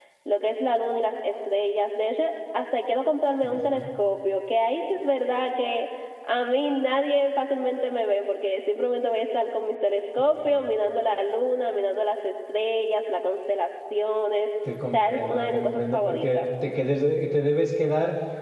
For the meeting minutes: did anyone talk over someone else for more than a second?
Yes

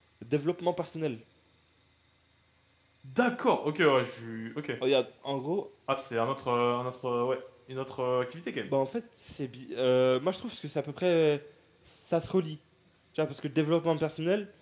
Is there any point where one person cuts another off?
No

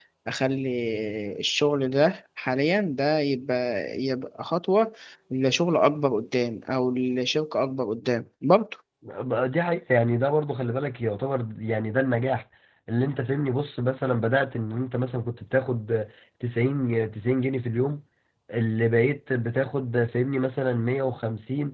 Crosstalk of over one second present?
No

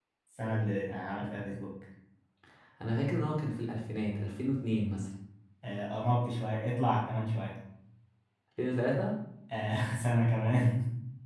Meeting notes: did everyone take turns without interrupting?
Yes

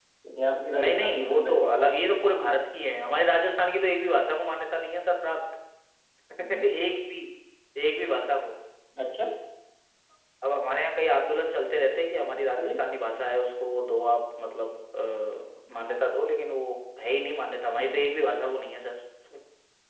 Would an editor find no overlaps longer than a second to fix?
No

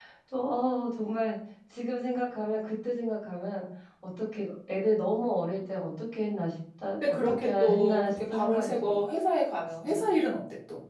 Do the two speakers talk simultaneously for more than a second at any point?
Yes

